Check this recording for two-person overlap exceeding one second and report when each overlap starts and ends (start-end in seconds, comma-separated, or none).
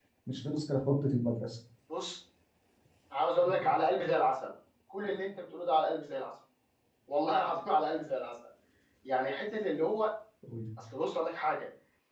none